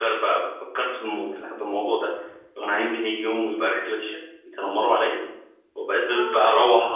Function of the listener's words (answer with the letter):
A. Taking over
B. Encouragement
B